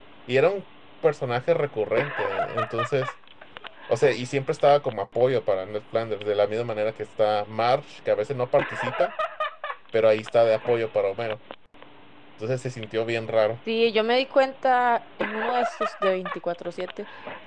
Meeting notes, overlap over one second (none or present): none